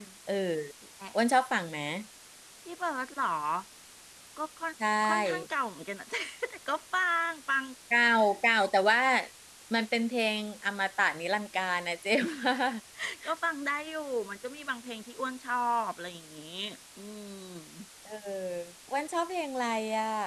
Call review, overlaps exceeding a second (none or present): none